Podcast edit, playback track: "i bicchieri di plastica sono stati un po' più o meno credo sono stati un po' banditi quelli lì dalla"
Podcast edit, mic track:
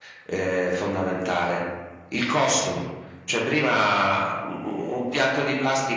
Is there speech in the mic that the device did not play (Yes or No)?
Yes